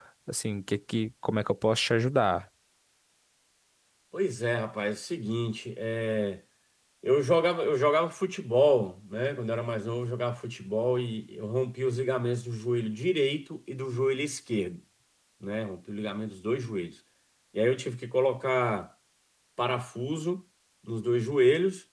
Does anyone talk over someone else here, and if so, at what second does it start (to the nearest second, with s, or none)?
none